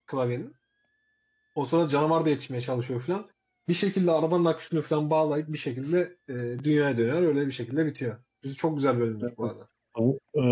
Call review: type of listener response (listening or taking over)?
taking over